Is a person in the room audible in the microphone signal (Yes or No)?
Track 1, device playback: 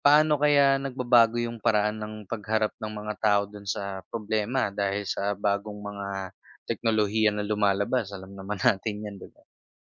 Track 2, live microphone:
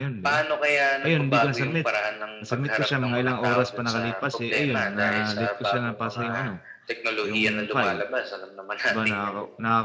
Yes